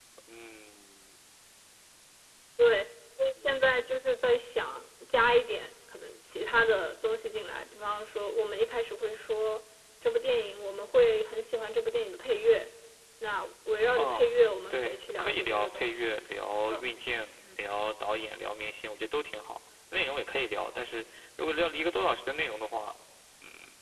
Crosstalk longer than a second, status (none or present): present